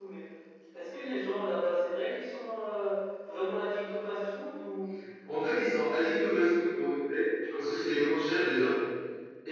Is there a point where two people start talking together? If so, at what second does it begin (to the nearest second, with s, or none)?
none